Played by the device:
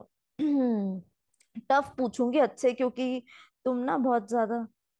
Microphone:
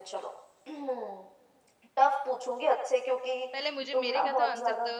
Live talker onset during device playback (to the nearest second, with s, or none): 4 s